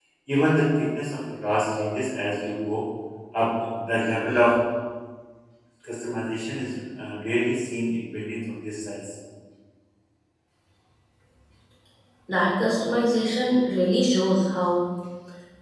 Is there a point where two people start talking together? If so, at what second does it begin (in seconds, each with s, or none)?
none